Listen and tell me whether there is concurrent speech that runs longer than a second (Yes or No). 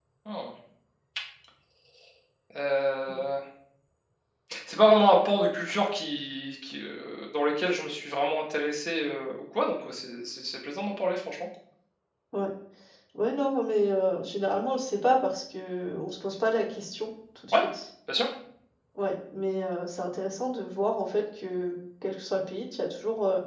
No